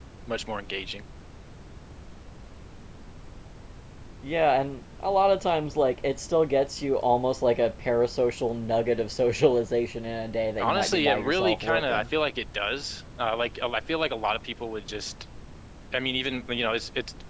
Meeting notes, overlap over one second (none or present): present